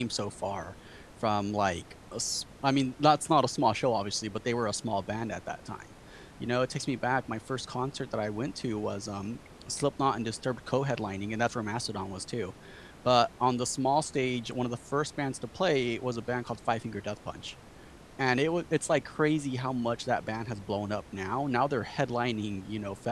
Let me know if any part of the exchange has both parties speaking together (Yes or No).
No